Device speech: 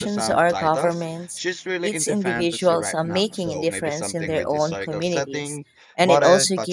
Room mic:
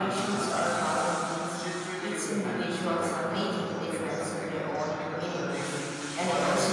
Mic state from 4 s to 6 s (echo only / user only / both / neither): echo only